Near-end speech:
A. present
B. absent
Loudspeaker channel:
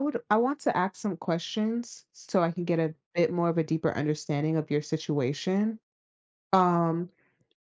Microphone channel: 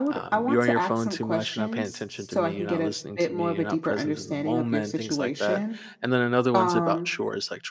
A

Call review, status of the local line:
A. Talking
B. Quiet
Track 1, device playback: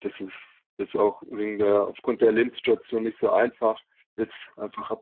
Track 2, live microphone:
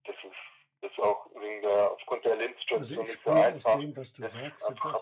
A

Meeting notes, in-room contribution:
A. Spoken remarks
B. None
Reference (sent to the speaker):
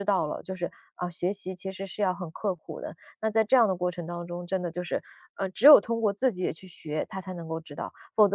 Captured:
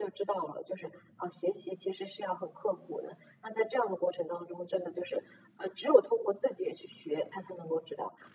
B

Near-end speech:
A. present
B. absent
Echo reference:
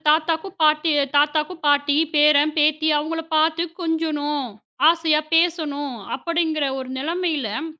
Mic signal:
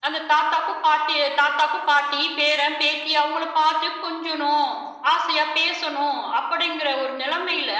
B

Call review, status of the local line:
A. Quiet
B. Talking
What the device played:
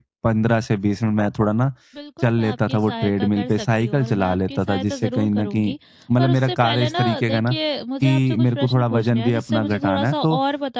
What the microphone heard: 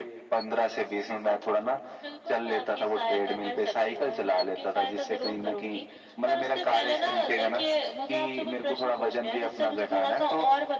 A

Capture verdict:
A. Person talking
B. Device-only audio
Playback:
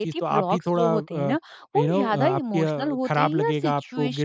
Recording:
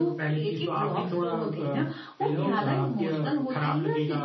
B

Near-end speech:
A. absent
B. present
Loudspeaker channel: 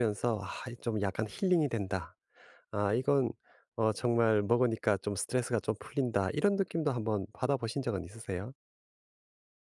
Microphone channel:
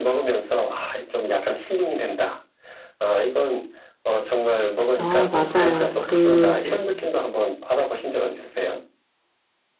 B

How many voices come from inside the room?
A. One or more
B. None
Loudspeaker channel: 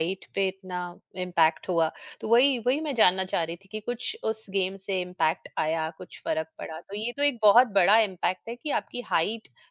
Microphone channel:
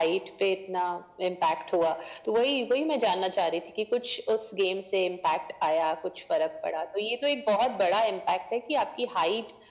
B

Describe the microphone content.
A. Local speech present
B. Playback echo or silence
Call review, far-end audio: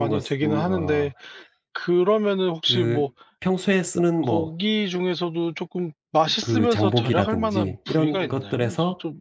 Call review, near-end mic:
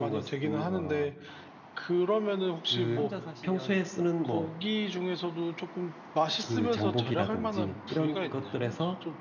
A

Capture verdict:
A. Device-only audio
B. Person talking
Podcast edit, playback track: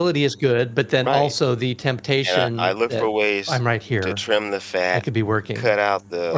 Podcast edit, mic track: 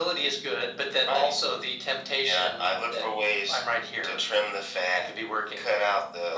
A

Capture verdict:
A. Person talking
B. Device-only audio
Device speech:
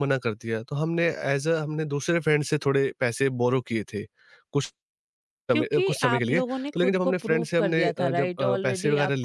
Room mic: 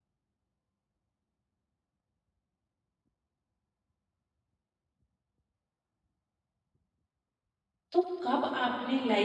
A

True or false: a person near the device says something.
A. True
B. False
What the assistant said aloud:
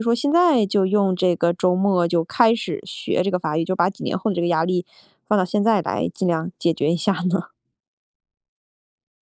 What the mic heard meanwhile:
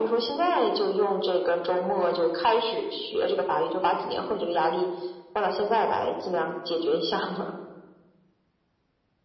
B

